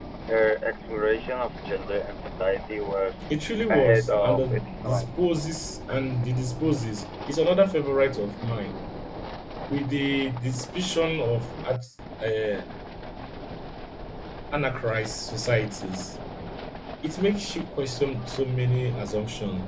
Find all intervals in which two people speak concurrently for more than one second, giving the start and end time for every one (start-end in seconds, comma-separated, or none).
3.7-5.2